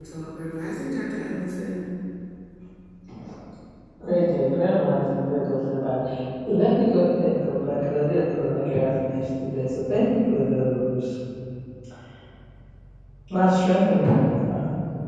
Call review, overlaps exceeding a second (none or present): none